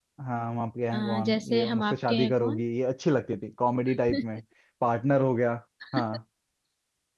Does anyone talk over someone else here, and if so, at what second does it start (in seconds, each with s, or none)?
0.9 s